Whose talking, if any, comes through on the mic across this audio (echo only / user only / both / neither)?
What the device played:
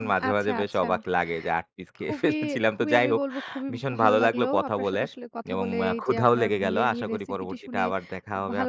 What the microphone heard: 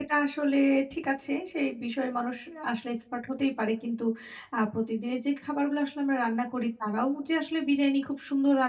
user only